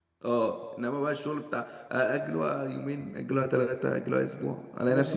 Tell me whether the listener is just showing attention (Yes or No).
No